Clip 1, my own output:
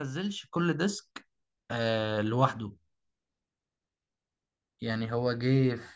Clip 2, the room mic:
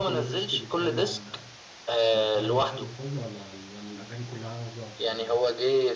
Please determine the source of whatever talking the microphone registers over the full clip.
both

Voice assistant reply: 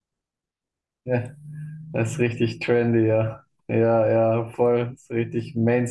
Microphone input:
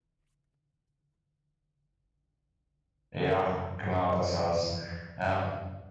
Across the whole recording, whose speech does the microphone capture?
user only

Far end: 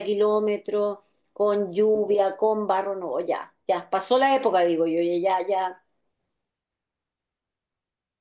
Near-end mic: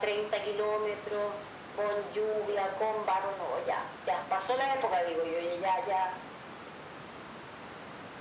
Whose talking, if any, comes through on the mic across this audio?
echo only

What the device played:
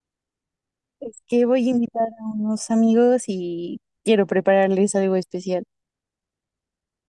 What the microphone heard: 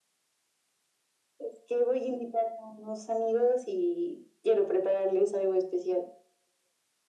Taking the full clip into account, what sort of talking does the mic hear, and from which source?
echo only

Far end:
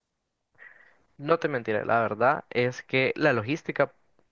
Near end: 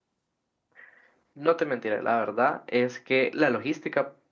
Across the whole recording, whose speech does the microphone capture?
echo only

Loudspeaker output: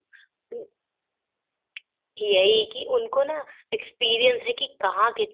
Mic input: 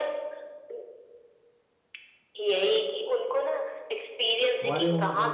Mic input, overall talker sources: both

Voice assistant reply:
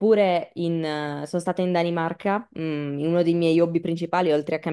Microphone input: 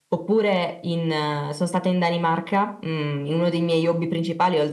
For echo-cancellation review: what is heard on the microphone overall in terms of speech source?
echo only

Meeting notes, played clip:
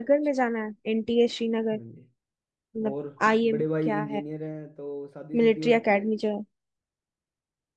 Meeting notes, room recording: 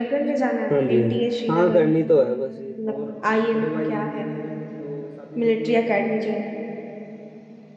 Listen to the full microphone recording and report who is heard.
both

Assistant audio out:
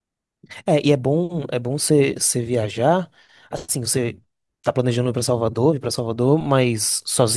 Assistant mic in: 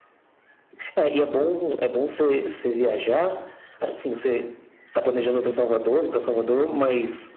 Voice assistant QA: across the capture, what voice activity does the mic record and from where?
echo only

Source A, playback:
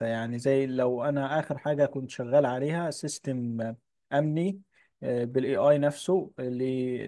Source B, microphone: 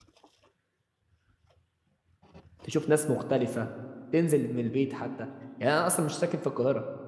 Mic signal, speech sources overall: user only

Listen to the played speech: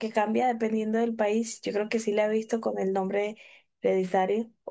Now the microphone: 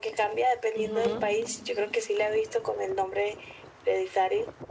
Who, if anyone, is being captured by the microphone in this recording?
both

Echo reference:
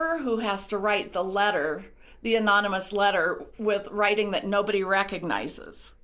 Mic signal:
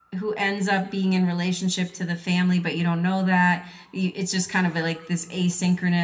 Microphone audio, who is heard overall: user only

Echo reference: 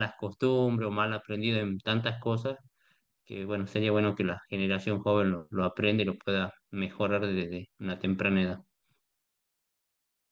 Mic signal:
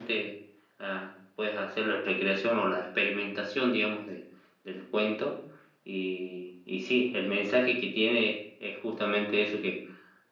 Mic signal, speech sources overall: user only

